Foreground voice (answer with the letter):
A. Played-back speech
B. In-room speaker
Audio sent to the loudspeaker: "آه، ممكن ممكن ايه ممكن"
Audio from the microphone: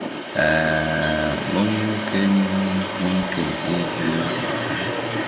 A